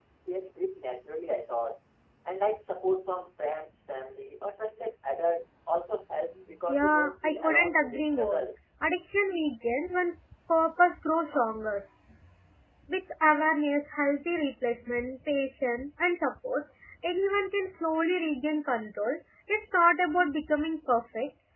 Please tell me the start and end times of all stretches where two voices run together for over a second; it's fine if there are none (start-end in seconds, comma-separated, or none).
6.7-8.4